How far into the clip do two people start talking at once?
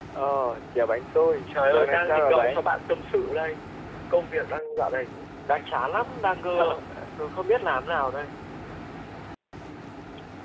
1 s

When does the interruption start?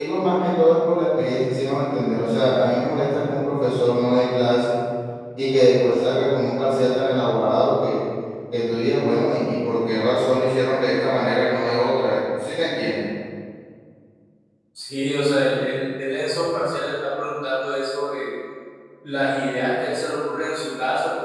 none

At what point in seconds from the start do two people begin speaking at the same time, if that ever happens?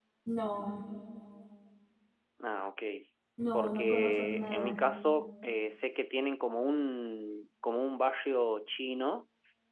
4 s

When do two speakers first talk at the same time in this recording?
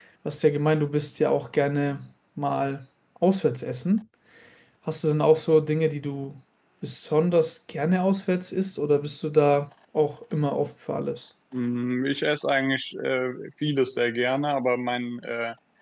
none

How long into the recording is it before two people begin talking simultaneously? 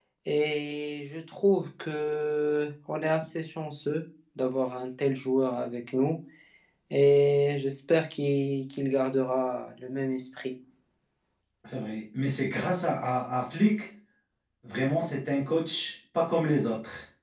none

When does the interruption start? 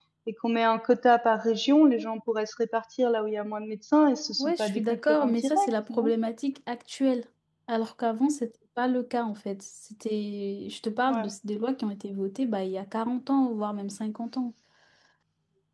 4 s

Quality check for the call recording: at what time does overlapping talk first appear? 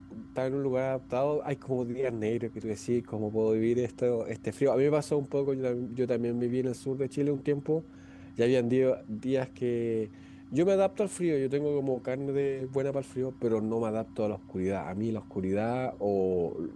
none

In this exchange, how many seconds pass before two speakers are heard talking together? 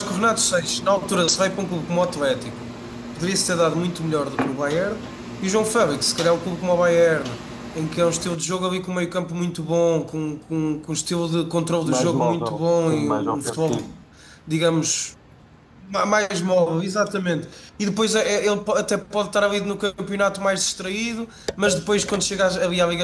12 s

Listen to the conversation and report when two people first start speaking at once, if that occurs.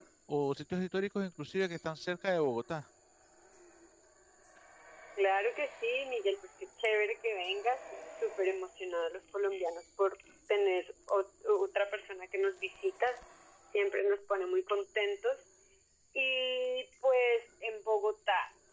none

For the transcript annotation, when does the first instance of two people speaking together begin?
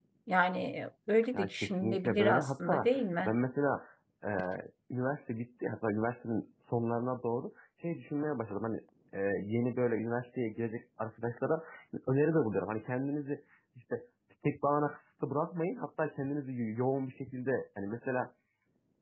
1 s

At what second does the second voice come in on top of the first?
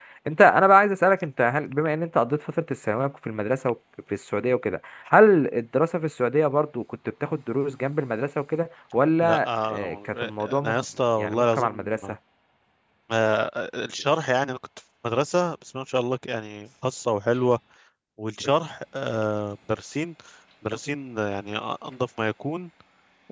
9 s

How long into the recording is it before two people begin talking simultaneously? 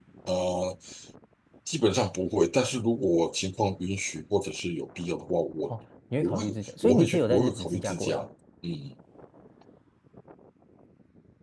6 s

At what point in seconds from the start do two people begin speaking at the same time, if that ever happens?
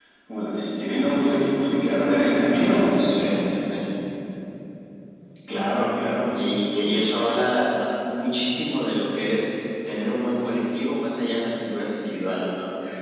none

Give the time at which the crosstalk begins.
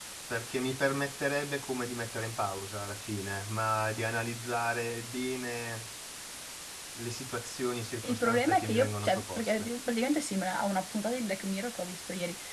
8 s

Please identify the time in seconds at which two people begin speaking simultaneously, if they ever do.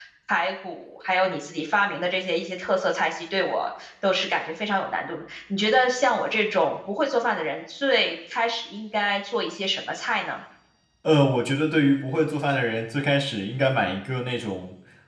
none

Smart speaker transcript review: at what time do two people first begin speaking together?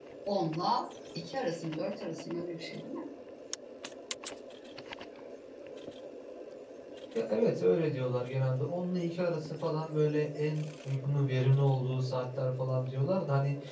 none

